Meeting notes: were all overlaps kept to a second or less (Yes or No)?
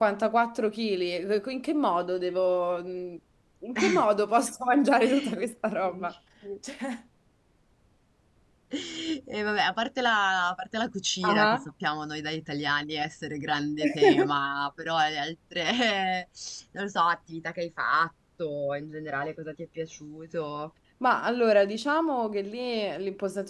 Yes